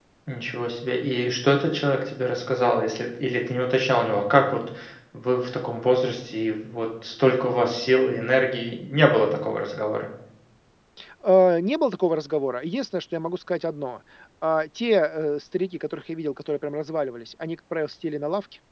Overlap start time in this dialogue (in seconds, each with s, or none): none